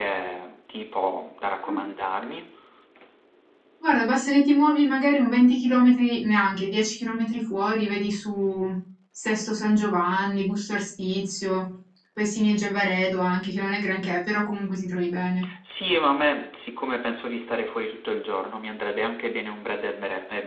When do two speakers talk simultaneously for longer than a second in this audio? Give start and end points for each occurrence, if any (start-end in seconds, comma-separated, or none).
none